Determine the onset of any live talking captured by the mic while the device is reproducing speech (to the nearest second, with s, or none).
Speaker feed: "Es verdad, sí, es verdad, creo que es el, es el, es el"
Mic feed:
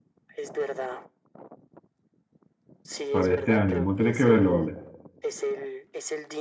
3 s